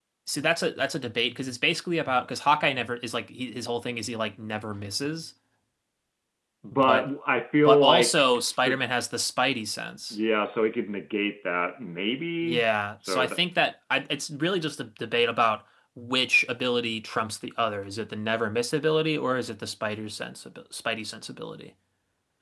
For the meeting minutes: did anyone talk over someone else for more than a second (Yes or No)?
Yes